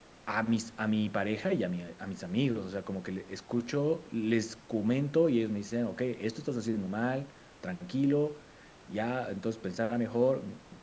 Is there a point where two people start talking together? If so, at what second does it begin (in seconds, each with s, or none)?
none